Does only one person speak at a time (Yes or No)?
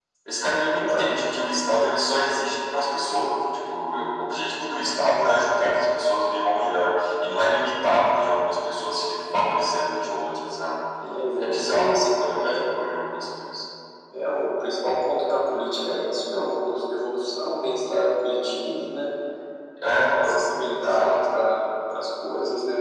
No